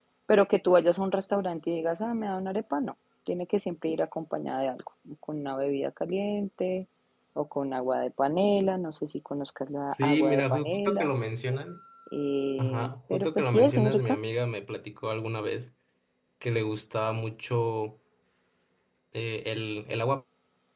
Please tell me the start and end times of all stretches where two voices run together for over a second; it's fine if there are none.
9.9-11.1, 12.6-14.2

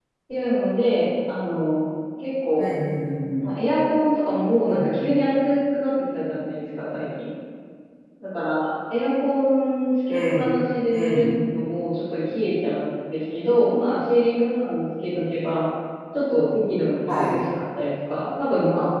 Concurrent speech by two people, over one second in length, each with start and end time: none

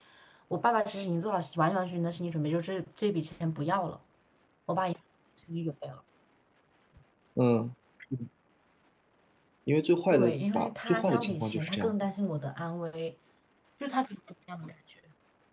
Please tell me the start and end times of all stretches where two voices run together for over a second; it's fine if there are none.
10.1-11.9

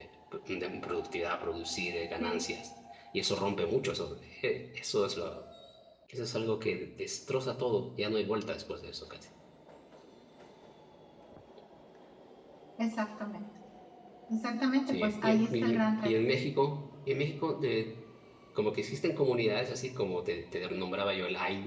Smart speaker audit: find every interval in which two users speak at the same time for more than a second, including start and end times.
14.9-16.1

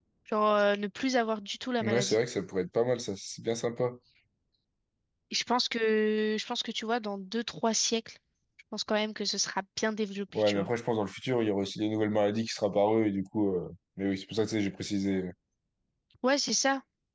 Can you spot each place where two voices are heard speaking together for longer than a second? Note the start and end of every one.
none

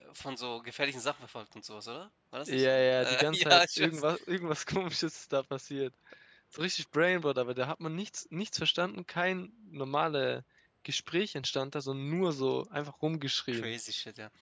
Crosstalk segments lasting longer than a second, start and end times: 2.5-4.0

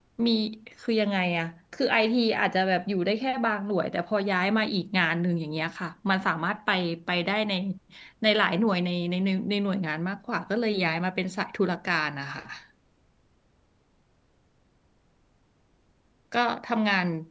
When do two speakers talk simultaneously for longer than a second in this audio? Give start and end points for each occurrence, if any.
none

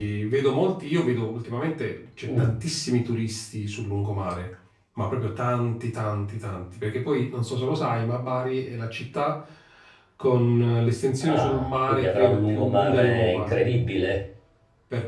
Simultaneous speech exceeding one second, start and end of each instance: 11.2-13.5

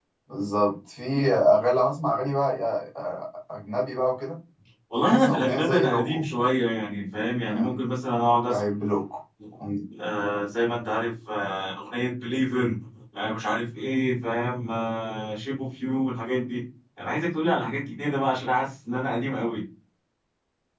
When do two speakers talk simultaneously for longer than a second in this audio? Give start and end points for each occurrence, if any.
5.0-6.2

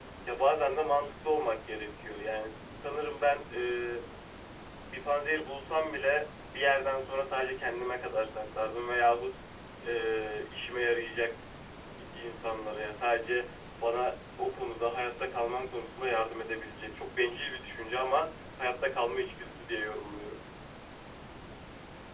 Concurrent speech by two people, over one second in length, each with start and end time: none

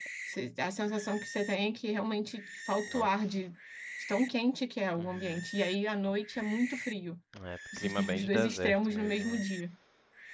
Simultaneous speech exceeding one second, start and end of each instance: 7.8-9.4

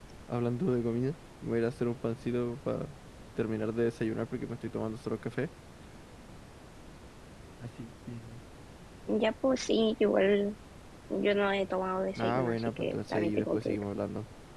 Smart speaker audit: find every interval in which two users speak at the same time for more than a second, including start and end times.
12.2-13.8

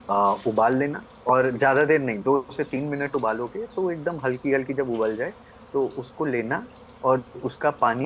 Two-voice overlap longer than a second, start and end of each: none

